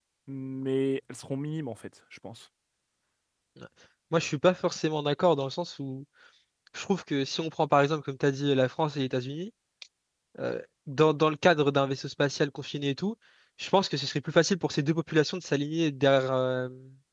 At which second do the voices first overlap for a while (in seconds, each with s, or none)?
none